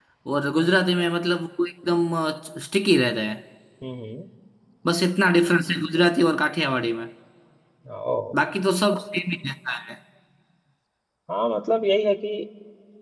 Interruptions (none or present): none